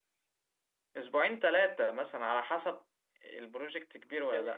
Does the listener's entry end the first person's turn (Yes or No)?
Yes